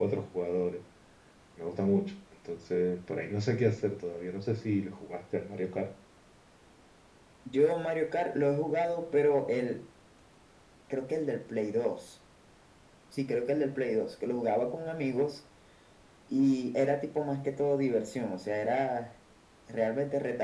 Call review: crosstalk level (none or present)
none